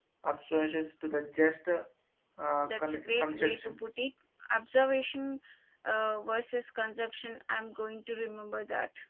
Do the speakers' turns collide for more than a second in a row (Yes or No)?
Yes